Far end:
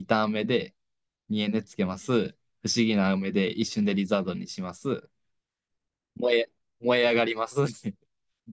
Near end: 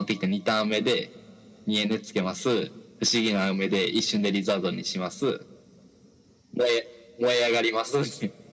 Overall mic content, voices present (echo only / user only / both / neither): echo only